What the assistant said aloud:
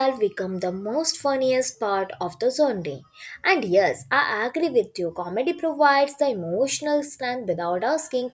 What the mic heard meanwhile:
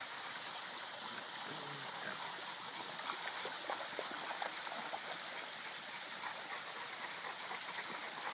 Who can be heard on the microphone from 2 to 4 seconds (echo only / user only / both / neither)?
neither